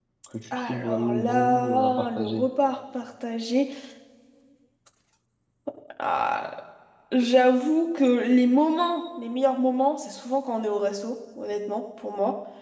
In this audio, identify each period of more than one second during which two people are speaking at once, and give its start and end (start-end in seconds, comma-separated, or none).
0.5-2.5